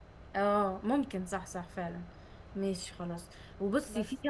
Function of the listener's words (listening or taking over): listening